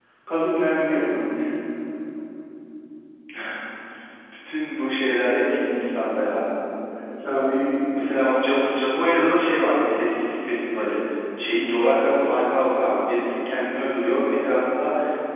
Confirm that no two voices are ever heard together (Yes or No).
Yes